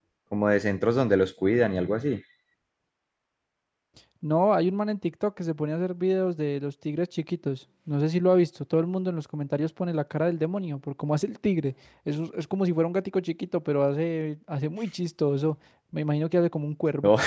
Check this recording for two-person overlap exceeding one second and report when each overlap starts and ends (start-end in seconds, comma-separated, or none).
none